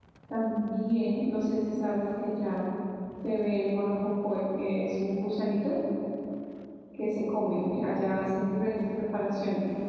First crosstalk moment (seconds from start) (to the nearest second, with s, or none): none